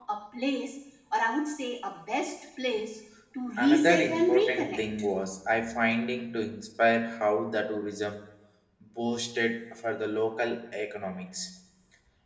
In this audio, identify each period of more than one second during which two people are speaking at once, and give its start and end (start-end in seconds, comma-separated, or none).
3.6-4.8